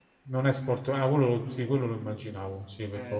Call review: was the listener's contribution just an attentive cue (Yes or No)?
No